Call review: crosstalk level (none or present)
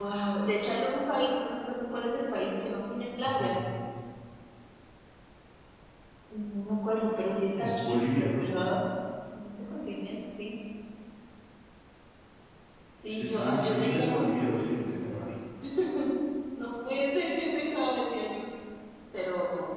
present